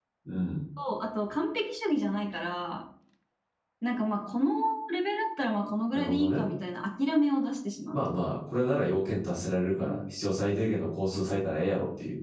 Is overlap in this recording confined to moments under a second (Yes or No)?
Yes